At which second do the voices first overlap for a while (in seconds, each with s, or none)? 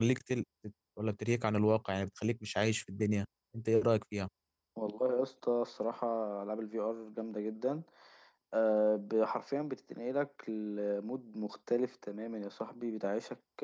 none